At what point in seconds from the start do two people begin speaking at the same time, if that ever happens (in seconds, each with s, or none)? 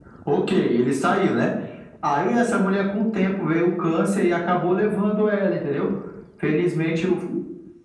none